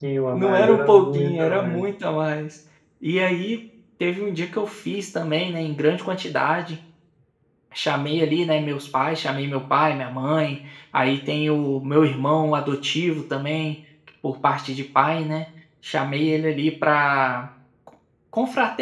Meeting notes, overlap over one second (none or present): present